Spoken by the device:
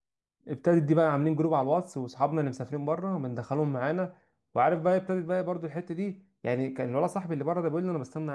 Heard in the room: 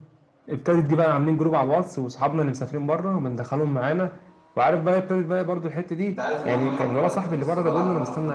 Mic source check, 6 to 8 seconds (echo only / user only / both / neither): both